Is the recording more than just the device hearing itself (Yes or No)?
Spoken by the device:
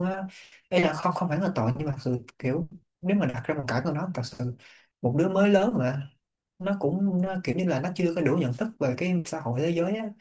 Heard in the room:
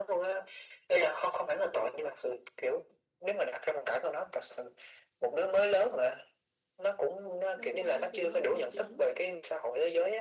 Yes